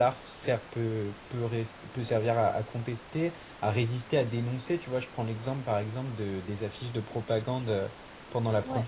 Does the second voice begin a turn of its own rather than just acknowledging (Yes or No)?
No